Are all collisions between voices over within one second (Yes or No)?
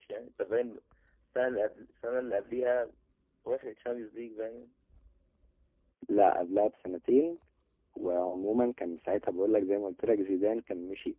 Yes